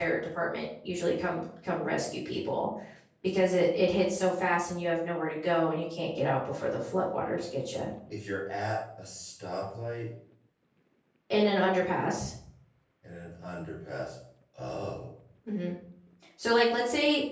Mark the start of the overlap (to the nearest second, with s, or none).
none